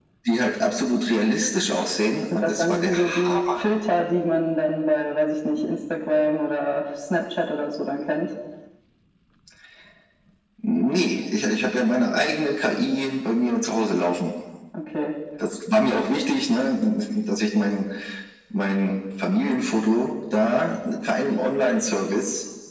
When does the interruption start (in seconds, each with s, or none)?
2.3 s